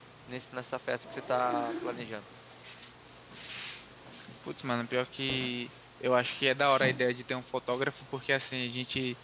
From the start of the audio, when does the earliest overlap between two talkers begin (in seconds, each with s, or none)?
none